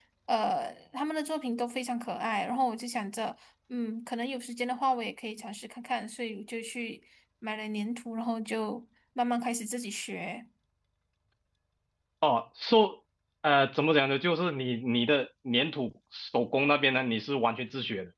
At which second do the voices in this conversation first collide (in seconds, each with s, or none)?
none